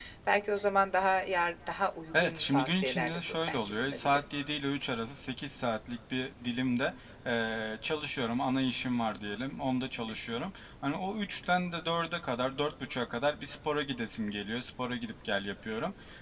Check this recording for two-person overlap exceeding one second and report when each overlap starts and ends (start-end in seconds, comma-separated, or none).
2.1-4.2